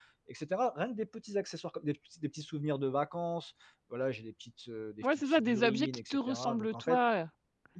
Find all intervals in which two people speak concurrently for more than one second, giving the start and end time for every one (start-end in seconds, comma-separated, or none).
5.0-7.0